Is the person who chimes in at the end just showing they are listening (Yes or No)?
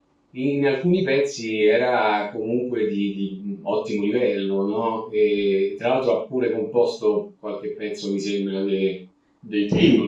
No